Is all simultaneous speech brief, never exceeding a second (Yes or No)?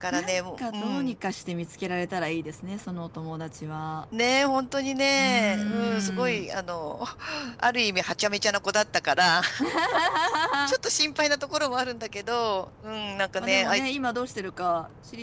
No